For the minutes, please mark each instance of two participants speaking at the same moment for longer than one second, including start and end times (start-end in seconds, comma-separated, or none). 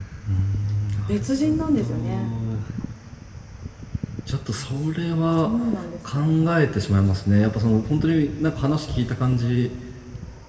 1.1-2.4